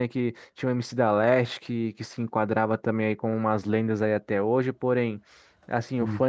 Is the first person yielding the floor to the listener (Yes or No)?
No